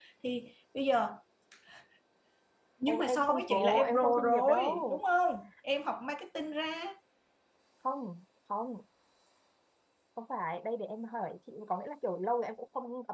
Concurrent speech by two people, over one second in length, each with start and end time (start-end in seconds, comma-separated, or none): 2.9-5.0